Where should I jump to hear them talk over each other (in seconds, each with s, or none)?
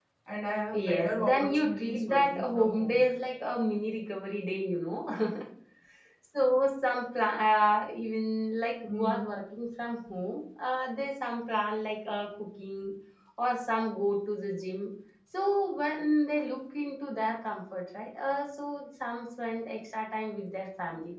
0.7 s